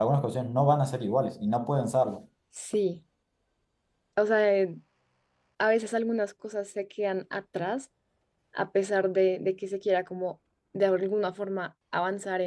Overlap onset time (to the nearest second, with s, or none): none